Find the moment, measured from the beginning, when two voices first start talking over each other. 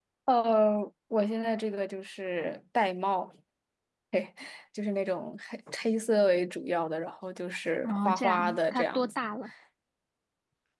8 s

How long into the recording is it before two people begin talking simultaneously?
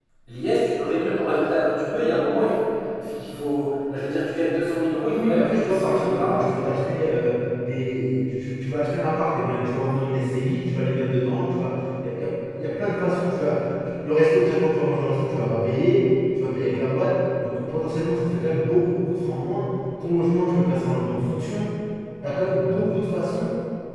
5 s

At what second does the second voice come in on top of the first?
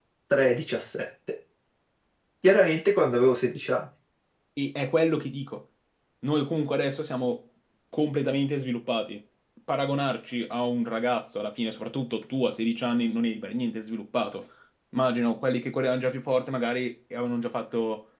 none

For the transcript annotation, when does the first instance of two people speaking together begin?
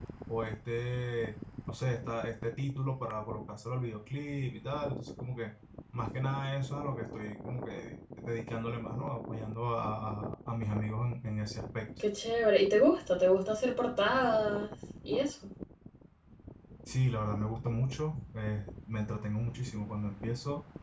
none

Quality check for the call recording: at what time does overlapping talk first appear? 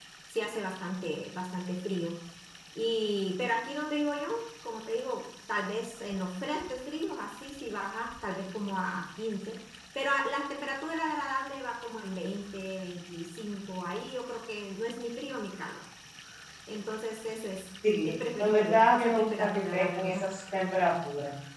18 s

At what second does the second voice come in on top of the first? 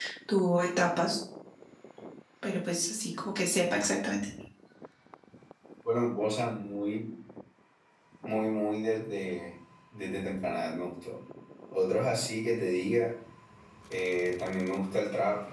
none

